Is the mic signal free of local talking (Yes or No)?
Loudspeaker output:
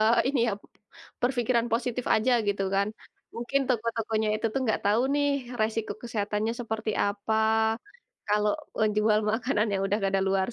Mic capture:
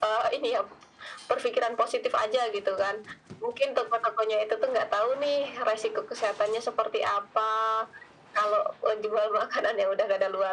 Yes